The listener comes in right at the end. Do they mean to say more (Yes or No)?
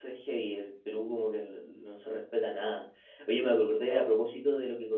No